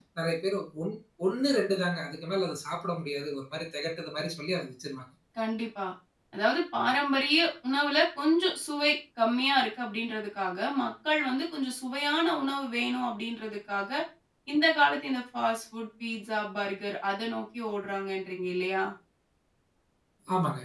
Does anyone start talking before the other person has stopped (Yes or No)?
No